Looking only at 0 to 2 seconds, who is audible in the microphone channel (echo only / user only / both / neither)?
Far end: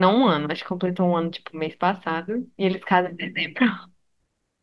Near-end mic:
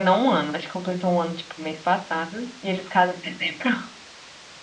echo only